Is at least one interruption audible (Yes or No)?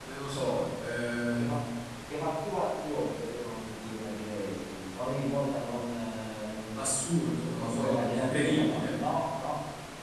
Yes